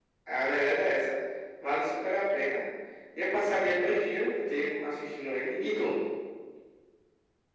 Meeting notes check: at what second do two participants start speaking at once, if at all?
none

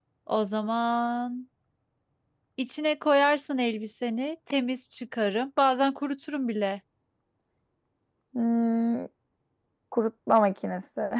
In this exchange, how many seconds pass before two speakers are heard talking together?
none

